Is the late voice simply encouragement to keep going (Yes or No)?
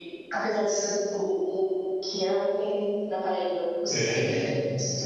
Yes